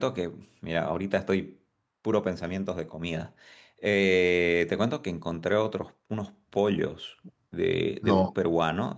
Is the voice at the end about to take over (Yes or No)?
No